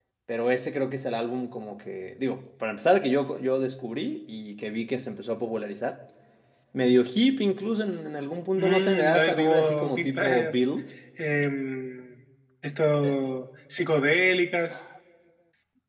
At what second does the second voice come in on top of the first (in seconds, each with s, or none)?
8.6 s